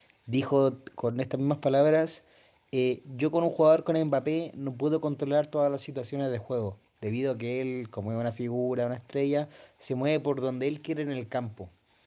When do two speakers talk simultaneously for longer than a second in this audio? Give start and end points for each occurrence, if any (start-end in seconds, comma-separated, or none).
none